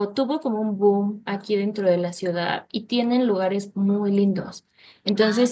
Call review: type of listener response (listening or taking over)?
listening